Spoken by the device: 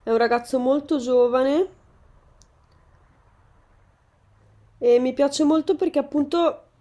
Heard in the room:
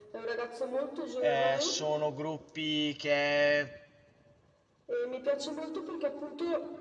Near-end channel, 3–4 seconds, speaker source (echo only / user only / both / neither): user only